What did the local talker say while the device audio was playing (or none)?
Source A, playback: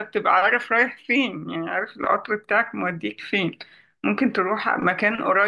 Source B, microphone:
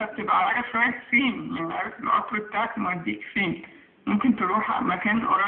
none